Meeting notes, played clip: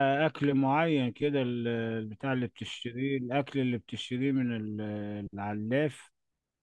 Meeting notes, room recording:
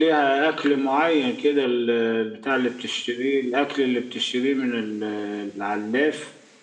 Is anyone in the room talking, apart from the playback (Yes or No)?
No